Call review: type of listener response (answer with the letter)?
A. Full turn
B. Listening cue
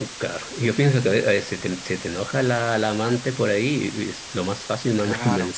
A